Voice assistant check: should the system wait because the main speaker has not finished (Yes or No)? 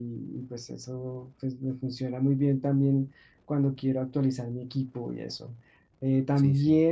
Yes